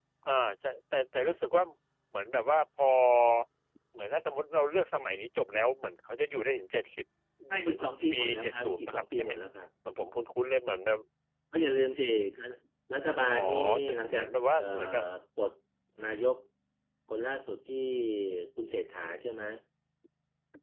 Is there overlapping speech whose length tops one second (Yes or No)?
Yes